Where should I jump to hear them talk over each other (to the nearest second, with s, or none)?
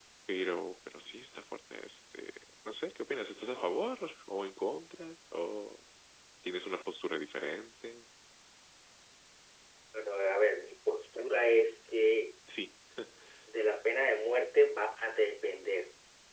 none